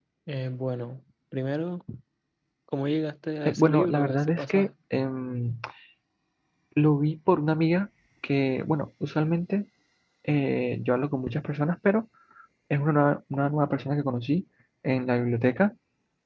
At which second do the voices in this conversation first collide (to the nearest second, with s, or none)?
3 s